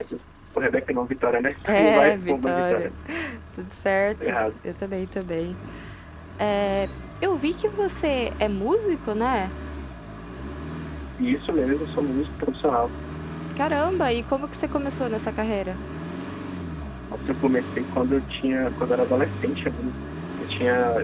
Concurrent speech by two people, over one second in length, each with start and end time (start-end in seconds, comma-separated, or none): 1.7-2.9